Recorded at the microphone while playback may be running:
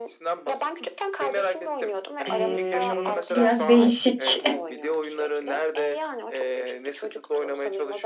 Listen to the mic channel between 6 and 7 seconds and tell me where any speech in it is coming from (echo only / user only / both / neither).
echo only